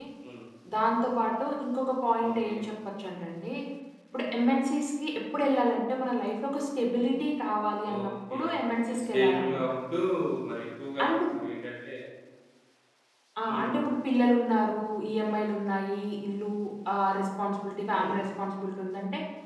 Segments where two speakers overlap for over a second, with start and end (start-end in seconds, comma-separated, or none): 7.9-9.6